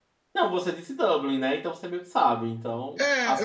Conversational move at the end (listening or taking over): taking over